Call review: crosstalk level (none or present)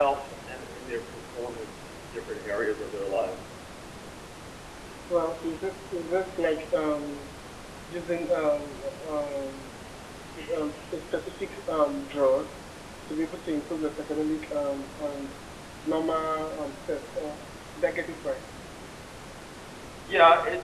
none